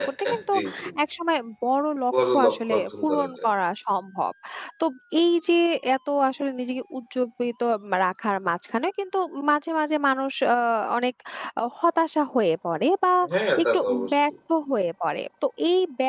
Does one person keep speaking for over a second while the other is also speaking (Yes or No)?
Yes